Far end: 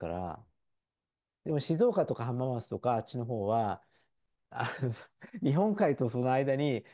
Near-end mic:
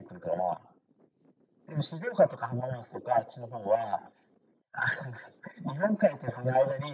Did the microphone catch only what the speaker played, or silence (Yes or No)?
Yes